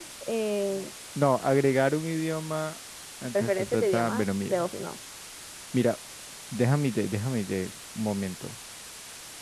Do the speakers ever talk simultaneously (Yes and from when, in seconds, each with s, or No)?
Yes, from 3.3 s